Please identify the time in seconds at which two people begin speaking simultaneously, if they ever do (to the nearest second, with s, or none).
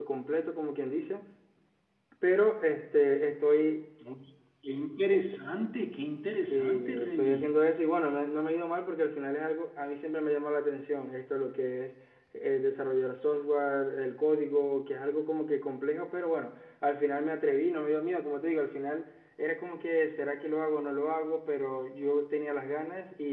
6 s